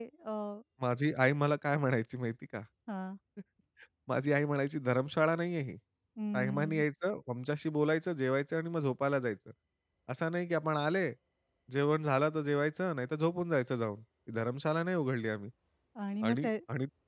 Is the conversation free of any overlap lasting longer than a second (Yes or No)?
Yes